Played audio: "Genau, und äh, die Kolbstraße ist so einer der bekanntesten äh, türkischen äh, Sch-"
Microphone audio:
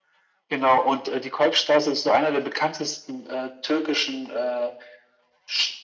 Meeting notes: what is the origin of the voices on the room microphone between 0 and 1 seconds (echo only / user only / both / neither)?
echo only